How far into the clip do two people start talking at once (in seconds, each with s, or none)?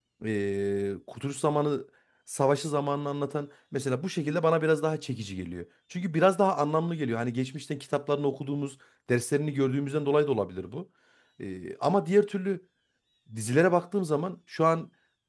none